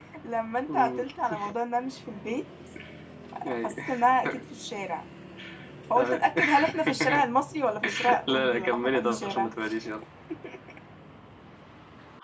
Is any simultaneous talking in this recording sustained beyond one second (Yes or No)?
Yes